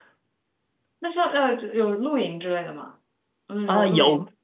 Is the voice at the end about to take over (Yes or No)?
Yes